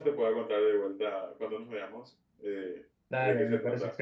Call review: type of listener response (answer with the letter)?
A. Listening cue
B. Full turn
B